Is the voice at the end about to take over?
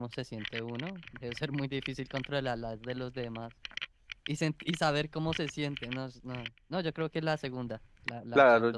Yes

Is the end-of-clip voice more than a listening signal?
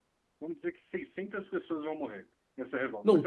Yes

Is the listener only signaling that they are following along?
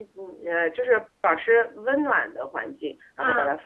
No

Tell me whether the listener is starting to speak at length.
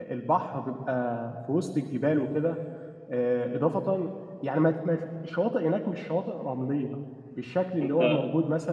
No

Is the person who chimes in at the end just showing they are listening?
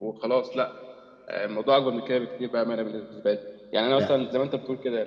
Yes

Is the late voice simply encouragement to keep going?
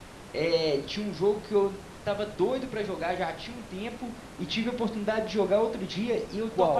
Yes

